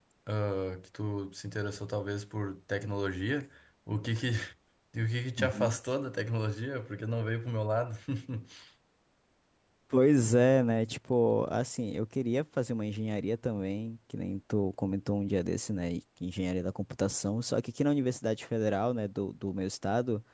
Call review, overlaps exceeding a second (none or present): none